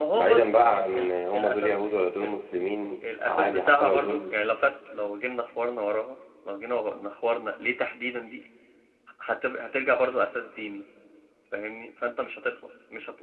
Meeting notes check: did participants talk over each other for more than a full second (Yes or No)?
Yes